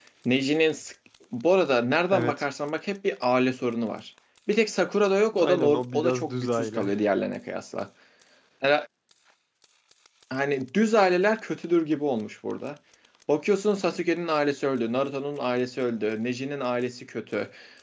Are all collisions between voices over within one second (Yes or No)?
No